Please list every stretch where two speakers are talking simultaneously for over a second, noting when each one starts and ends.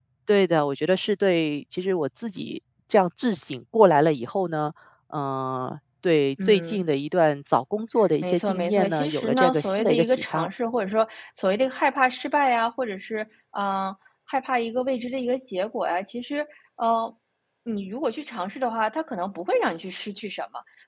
8.2-10.5

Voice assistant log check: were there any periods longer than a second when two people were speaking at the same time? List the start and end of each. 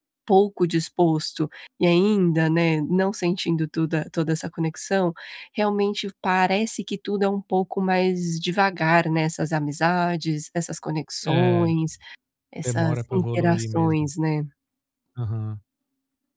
12.6-14.1

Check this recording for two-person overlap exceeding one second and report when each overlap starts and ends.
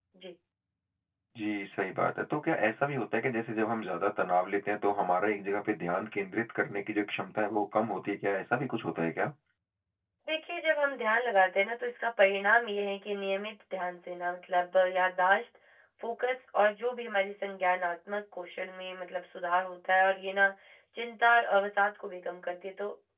none

